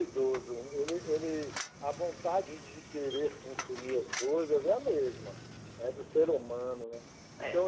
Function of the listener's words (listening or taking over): listening